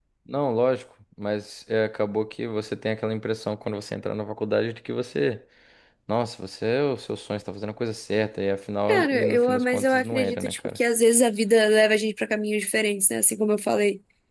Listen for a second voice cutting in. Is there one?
Yes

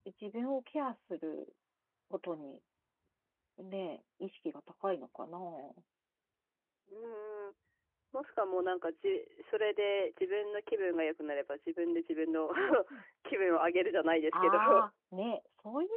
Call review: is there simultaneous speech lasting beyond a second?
No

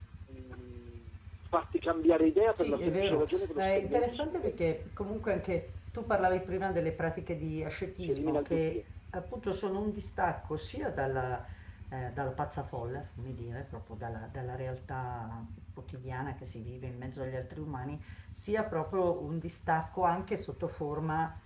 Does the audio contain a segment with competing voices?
Yes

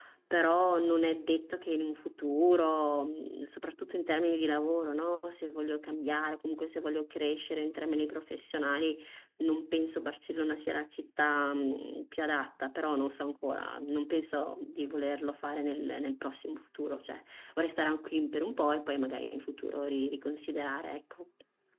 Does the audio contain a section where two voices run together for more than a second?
No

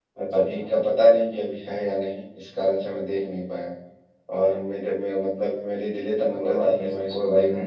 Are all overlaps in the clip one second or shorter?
No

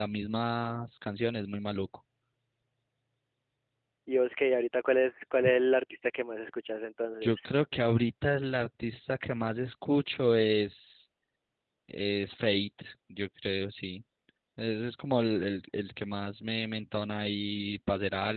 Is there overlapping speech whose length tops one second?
No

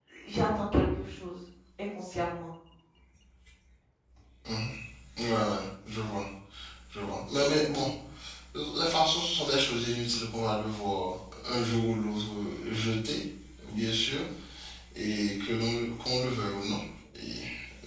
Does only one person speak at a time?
Yes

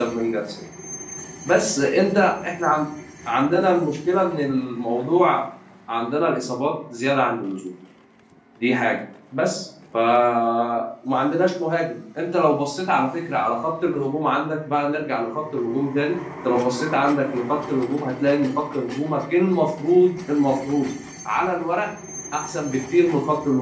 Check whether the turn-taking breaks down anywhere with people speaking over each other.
No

